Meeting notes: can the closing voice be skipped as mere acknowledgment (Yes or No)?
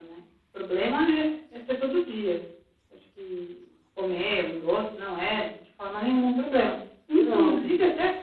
Yes